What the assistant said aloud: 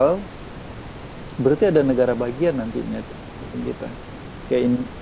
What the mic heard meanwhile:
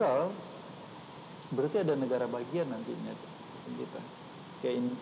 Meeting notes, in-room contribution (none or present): none